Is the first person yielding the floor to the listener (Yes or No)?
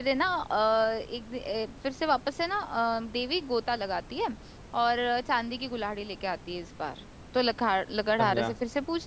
No